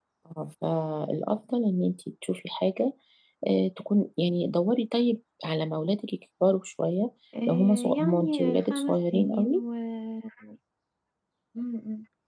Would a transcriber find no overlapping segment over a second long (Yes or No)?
No